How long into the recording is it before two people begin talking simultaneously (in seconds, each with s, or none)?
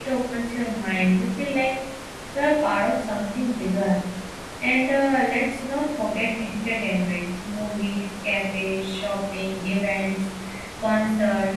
none